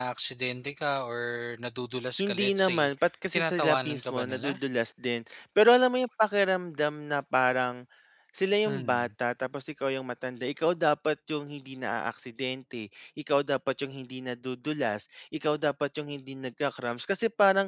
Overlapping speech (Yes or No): Yes